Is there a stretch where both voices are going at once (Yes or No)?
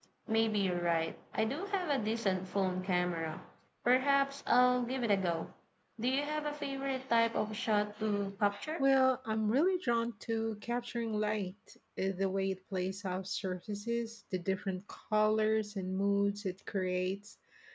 No